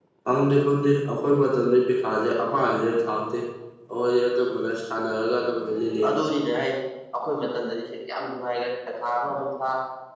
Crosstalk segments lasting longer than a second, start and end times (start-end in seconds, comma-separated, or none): none